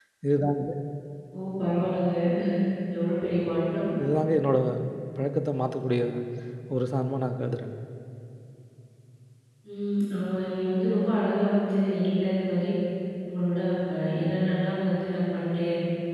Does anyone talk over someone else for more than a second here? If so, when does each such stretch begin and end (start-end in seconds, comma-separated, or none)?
none